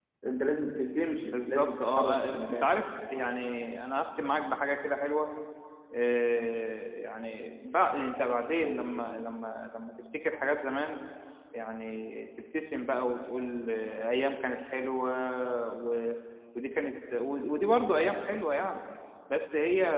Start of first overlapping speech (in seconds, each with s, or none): 1.3 s